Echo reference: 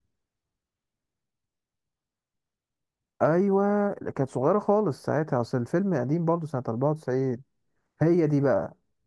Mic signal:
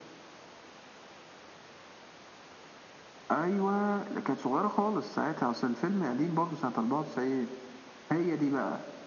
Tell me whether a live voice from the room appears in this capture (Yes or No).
No